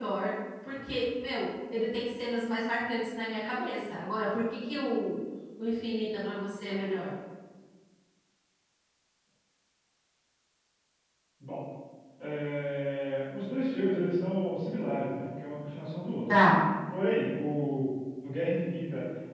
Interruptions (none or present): none